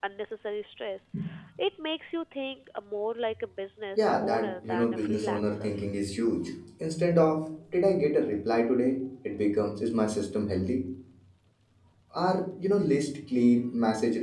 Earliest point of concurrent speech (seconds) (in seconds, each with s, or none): 4.0 s